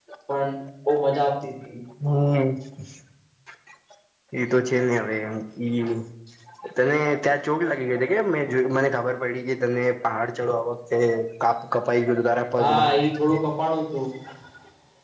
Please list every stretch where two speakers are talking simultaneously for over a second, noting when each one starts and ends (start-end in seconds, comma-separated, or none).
none